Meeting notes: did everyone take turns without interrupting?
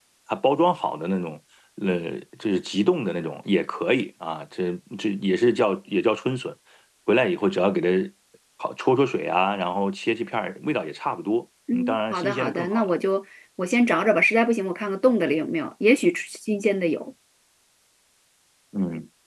No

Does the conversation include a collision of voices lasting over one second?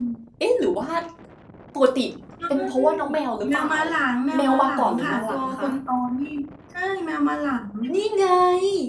Yes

